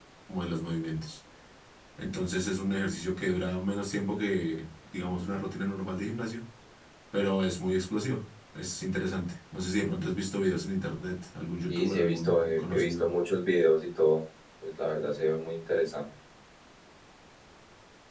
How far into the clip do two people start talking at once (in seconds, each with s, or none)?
11.7 s